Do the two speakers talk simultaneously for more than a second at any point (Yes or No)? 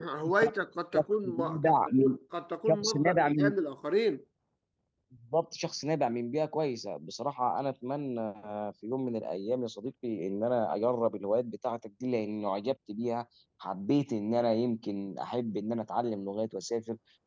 Yes